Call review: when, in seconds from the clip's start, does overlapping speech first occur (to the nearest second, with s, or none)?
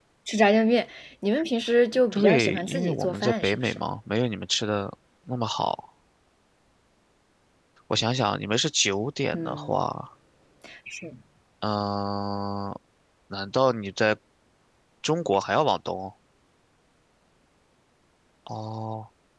2 s